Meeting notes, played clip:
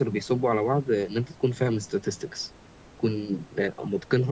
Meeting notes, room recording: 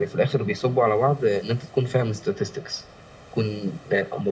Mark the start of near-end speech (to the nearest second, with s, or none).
none